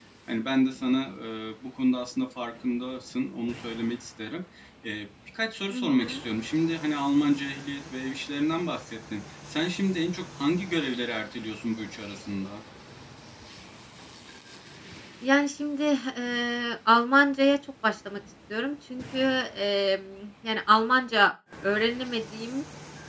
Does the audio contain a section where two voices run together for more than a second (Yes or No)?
No